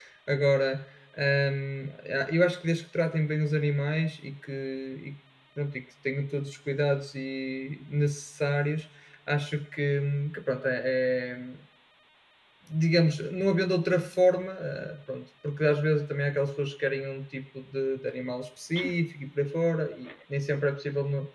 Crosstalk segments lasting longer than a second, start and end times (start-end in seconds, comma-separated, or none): none